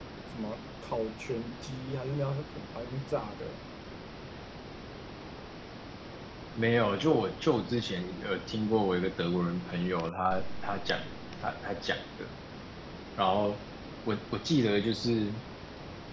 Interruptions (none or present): none